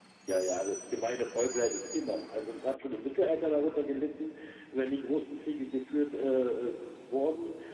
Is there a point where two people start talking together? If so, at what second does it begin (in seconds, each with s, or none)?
none